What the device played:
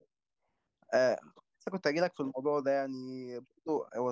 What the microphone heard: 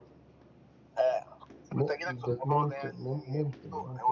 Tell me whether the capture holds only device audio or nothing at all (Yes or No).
No